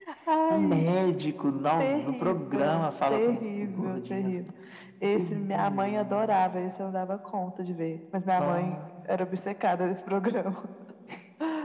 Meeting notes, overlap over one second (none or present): present